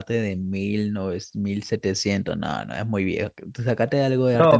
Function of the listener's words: taking over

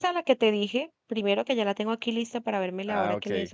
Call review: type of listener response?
listening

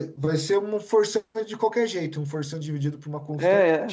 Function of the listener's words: taking over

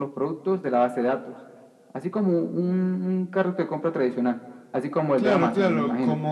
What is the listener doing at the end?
taking over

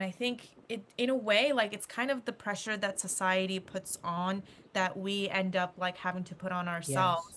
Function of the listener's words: listening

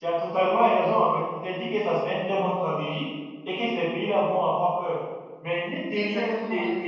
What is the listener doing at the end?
listening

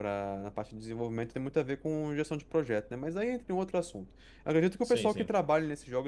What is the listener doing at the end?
listening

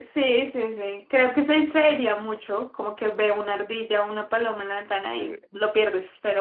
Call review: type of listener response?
listening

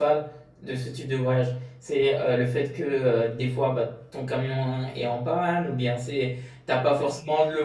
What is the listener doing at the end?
listening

